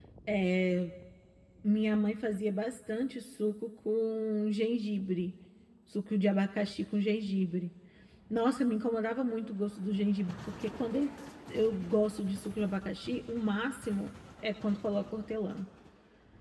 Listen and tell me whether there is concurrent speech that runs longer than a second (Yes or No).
No